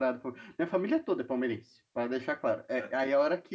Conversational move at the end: listening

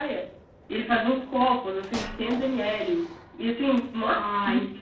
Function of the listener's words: listening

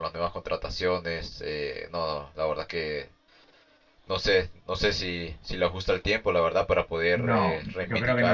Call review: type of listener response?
taking over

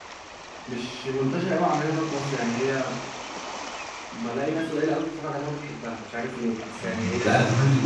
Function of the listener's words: taking over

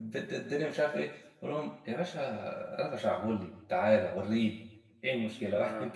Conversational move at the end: listening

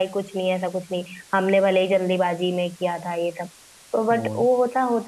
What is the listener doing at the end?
listening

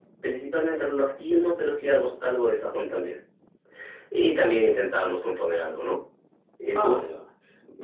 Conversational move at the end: taking over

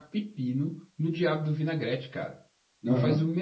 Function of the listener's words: listening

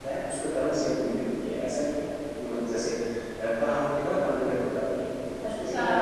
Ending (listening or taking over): taking over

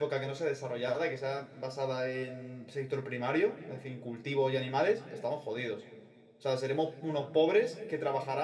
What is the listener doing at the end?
listening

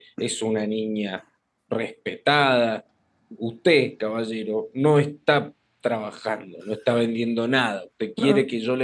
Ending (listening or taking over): listening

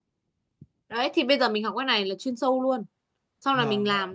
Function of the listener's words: taking over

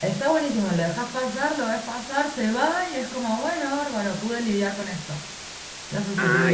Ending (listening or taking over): taking over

